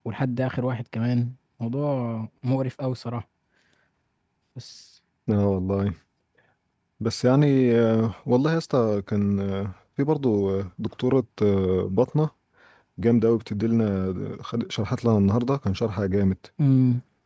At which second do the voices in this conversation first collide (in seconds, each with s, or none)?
none